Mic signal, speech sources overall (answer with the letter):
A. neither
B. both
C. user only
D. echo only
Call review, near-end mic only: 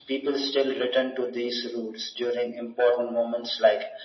D